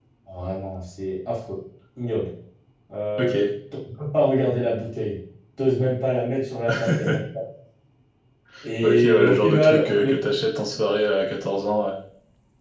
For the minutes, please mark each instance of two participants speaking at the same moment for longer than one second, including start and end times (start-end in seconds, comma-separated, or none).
8.8-10.2